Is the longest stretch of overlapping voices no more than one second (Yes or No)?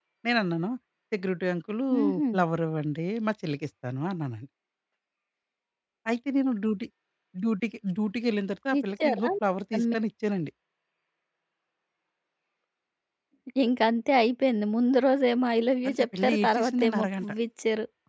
No